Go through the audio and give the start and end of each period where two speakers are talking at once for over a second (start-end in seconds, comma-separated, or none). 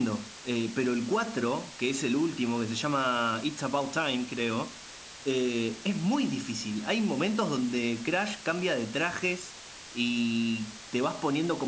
none